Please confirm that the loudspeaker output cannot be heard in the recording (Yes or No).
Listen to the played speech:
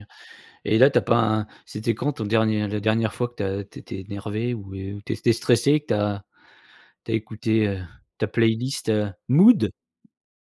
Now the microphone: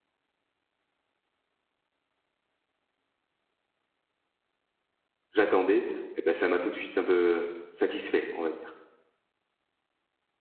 Yes